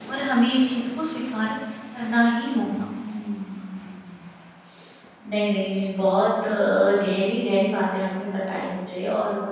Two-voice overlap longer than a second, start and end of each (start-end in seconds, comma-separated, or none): none